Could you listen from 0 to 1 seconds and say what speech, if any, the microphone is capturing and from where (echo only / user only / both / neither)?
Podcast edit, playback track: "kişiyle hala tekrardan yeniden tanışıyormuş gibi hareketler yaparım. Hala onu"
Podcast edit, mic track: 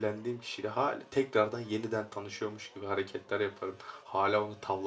echo only